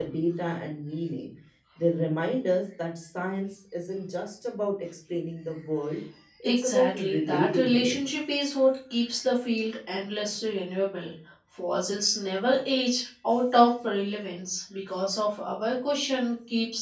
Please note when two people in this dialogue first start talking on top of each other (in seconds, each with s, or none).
6.4 s